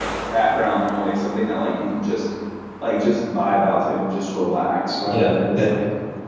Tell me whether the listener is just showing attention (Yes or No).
No